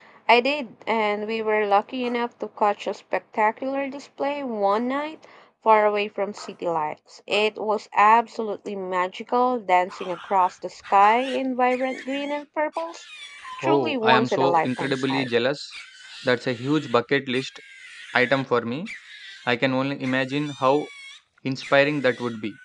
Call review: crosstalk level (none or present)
present